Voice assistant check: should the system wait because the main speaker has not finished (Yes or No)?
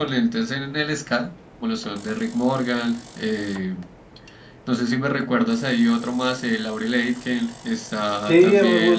No